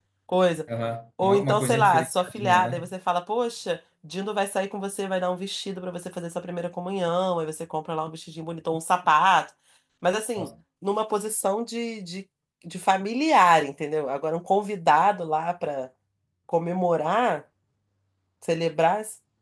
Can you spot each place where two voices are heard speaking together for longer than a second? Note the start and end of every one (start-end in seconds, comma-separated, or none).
1.2-2.9